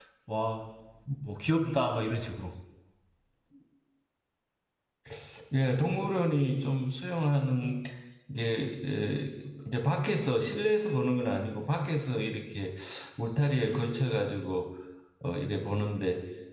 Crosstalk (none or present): none